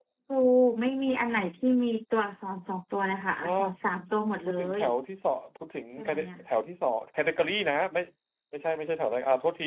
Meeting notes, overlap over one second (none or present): none